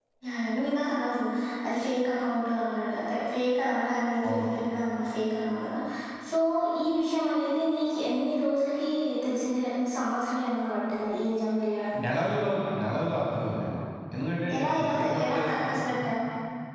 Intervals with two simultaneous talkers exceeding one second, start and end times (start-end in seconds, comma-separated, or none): 14.6-15.8